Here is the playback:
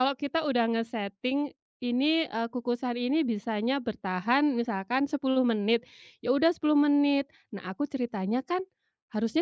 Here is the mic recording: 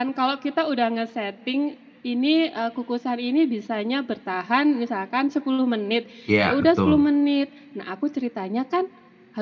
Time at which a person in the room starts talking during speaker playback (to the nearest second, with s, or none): 6 s